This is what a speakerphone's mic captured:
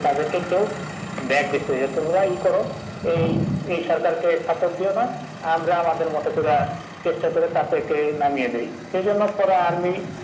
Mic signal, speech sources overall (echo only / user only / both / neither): echo only